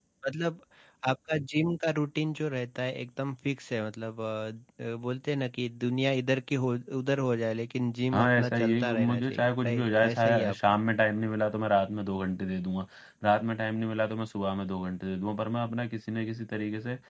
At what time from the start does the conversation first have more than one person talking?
8.1 s

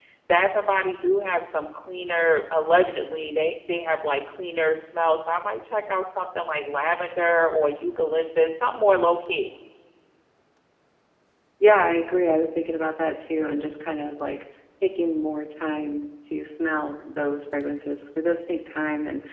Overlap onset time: none

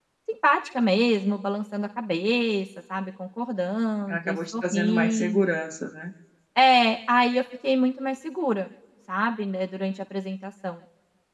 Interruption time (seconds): 4.1 s

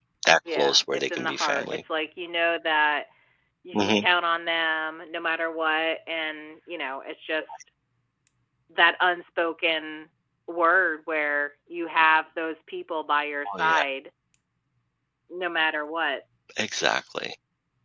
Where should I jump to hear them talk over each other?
0.5 s

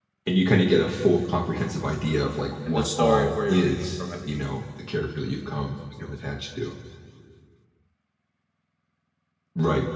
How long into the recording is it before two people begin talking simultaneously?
2.7 s

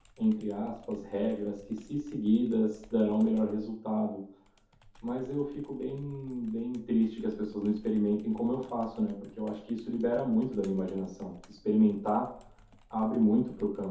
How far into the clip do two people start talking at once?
none

